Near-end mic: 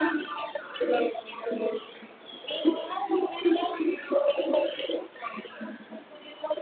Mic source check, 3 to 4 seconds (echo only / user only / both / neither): echo only